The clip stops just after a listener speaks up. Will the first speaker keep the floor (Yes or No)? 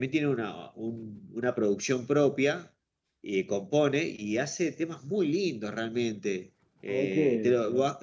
Yes